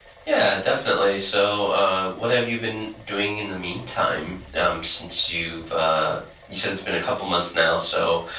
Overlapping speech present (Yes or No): No